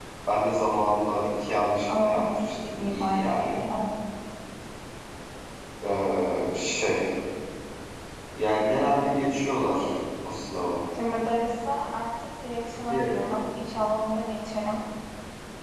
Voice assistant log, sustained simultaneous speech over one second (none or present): present